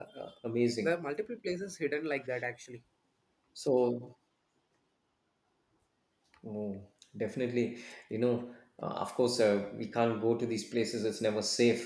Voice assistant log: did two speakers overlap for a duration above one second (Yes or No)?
No